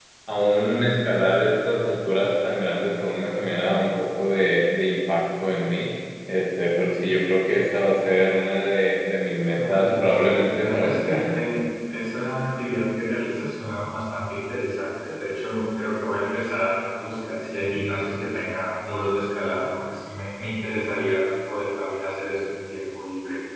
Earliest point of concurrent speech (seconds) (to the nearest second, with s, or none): 10 s